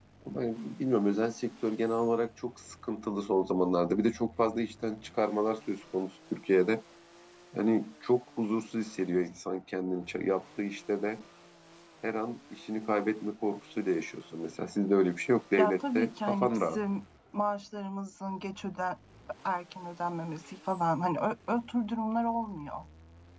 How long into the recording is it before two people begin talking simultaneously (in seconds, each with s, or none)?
15.6 s